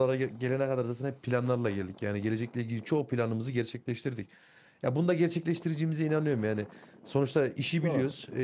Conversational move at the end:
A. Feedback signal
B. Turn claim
A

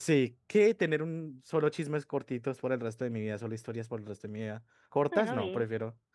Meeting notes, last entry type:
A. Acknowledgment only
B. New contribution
A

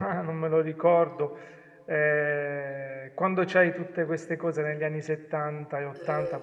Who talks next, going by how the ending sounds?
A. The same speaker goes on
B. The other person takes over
A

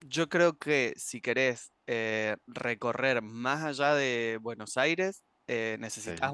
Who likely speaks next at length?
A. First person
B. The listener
A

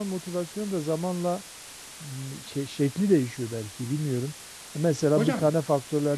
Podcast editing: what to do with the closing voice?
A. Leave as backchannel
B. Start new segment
A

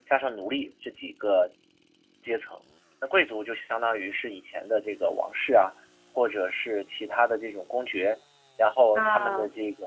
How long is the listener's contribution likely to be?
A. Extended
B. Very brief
B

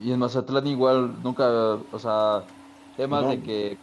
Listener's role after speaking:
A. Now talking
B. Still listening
B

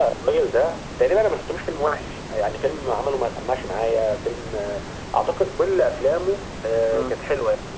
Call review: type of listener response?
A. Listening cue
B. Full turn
A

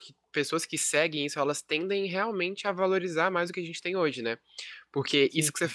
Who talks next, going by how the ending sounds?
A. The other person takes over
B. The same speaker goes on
B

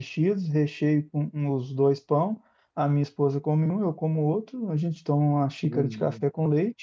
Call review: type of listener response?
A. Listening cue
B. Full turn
A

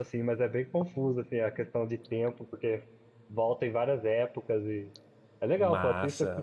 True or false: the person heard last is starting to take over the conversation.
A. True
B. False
A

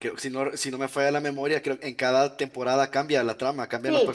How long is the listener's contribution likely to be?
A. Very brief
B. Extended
B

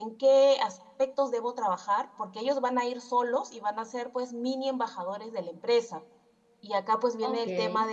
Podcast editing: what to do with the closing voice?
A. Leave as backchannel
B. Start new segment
A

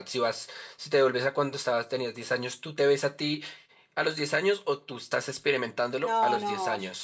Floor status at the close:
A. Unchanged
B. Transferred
B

